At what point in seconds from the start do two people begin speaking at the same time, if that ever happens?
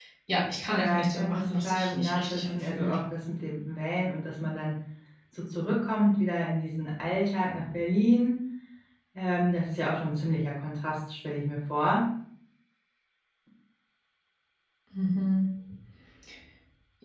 1 s

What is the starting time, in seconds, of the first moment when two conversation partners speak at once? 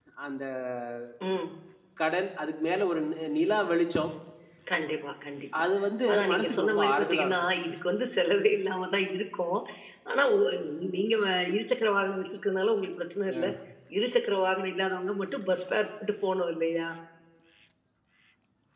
6 s

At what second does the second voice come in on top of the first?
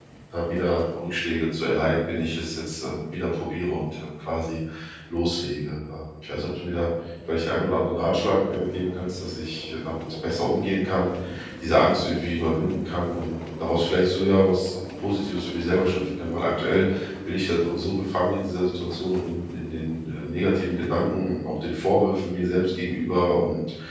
none

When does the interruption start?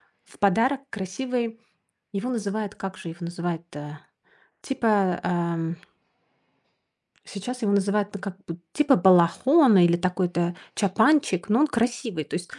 none

